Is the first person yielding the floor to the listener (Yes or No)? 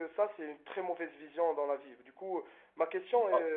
No